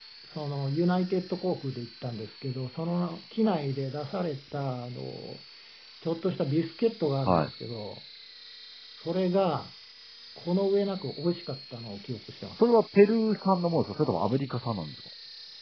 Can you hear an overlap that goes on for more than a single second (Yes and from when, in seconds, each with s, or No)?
No